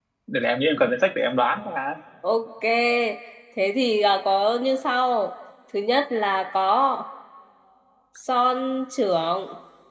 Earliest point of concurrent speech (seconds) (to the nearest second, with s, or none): none